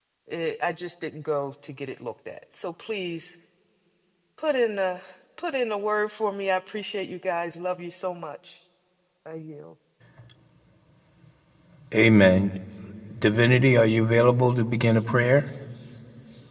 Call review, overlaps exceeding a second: none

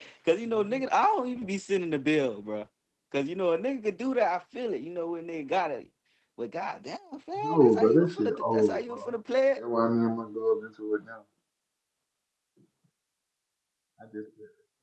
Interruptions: present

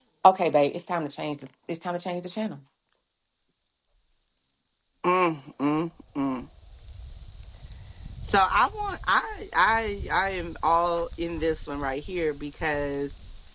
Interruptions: none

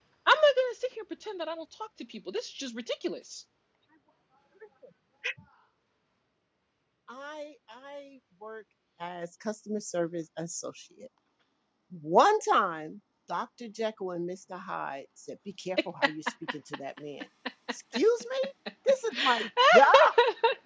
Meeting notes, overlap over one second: none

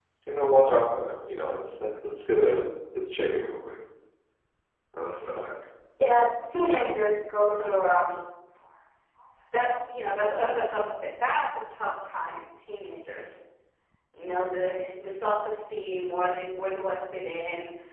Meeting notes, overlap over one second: none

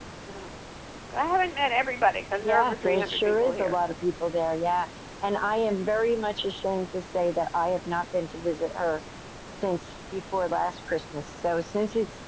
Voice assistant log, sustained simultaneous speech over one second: present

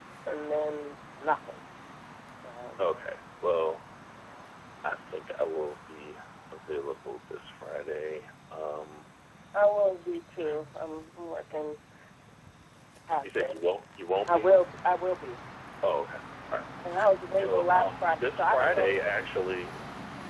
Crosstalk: present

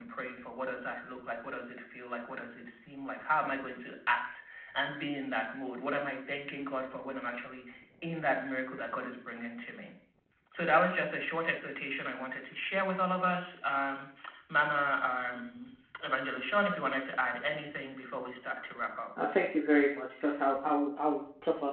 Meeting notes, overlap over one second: none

